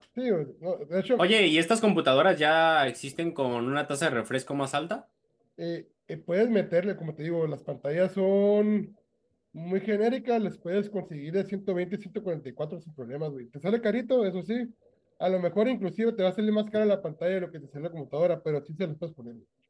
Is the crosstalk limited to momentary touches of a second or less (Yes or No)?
Yes